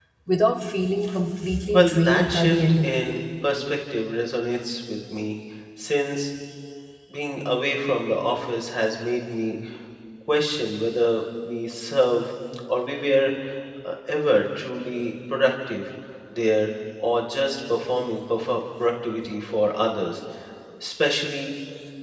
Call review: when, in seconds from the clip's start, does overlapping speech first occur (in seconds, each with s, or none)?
1.7 s